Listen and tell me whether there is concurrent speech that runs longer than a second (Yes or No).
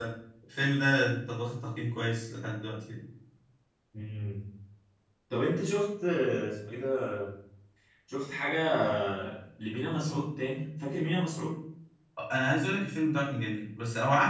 No